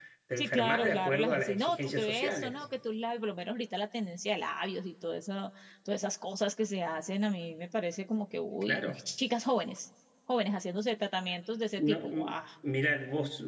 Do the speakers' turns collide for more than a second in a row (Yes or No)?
Yes